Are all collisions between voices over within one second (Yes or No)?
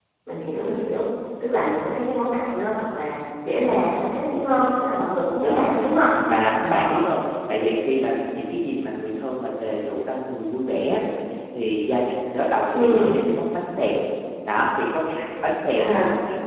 Yes